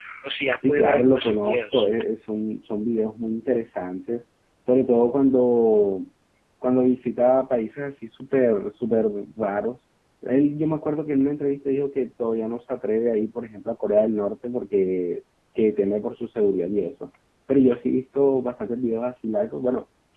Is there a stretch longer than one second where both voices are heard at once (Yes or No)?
Yes